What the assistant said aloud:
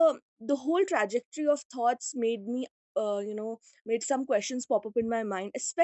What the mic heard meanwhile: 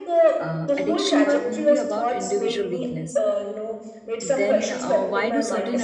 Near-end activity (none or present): present